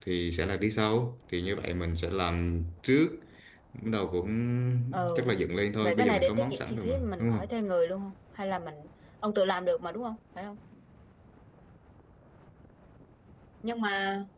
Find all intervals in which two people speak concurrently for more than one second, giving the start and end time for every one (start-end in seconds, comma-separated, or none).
5.8-7.5